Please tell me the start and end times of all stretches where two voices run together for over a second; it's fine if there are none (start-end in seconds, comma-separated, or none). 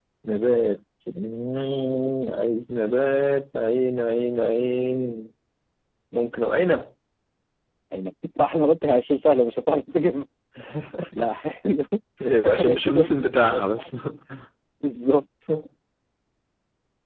12.4-13.9